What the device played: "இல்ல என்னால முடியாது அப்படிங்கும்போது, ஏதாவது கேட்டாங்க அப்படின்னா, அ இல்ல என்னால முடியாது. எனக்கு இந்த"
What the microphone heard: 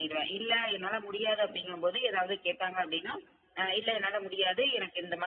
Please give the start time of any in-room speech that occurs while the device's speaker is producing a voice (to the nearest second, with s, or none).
none